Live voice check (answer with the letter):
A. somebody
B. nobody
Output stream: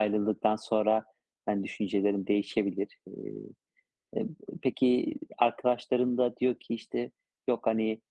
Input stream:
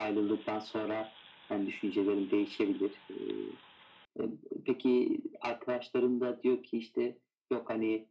B